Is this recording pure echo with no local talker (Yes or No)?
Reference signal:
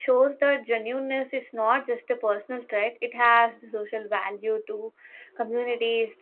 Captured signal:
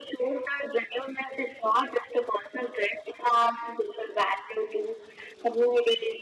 Yes